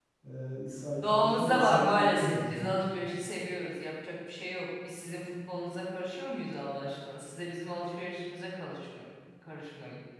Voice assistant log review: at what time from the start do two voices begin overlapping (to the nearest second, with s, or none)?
1 s